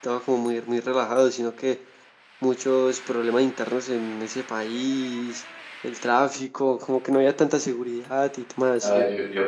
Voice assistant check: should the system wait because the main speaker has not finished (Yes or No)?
No